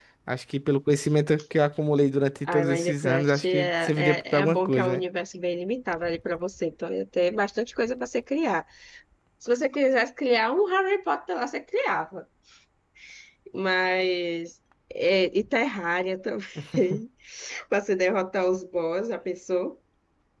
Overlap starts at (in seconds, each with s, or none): 2.5 s